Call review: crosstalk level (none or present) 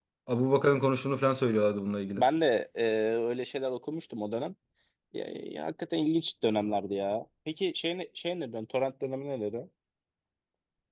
none